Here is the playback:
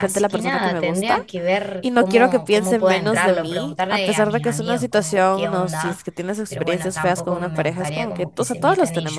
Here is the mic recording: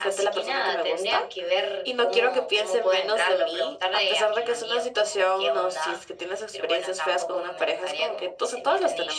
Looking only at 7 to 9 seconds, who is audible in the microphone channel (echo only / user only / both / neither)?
echo only